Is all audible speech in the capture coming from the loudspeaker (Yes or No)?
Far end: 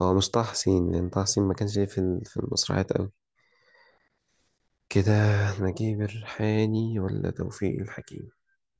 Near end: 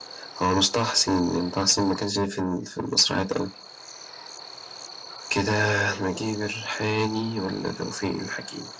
Yes